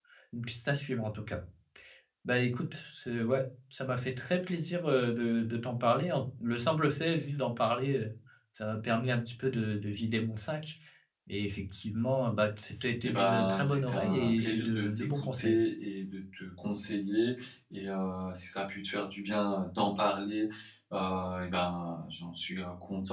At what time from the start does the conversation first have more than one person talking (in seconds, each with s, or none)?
13.0 s